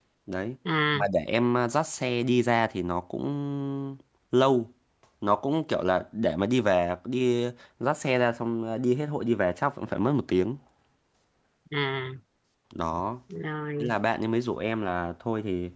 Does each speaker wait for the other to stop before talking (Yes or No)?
Yes